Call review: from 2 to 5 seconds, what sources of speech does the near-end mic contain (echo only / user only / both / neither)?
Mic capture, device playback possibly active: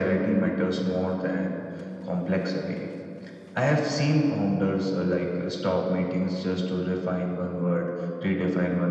echo only